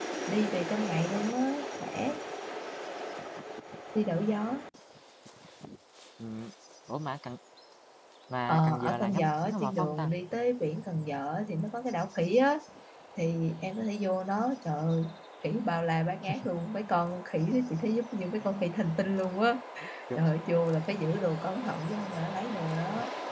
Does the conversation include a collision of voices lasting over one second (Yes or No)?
Yes